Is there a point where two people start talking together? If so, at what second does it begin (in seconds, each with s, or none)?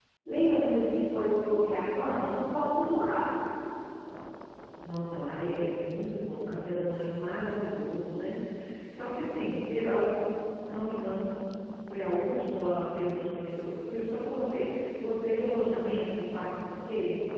none